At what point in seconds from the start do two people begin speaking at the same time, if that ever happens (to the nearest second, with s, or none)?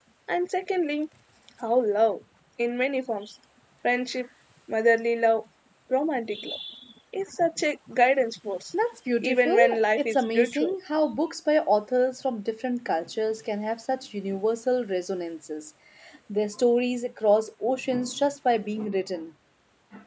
9 s